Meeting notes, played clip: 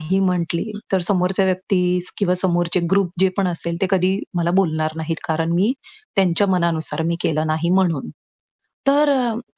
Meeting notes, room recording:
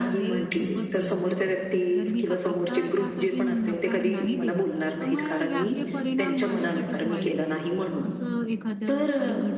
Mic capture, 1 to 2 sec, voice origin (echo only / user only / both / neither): both